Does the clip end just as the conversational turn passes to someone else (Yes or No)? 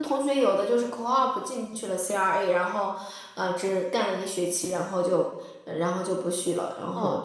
Yes